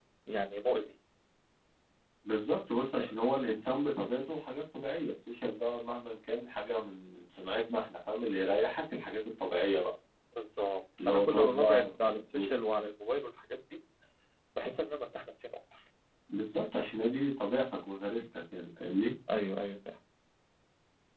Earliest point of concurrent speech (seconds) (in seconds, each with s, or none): 11.0 s